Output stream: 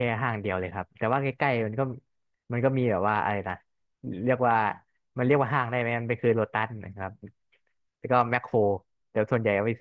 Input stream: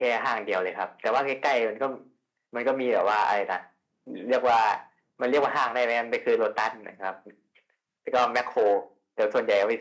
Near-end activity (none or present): none